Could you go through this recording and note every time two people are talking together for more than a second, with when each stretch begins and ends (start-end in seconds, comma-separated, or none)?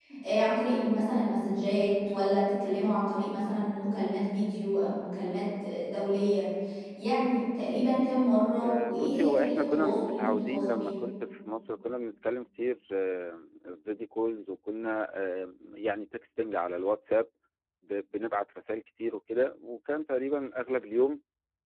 8.6-10.9